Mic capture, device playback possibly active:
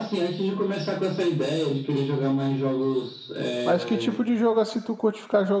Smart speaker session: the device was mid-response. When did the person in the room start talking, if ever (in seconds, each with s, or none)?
3.6 s